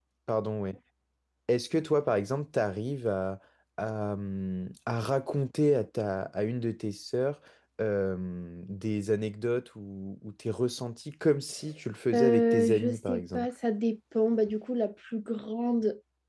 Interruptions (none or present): present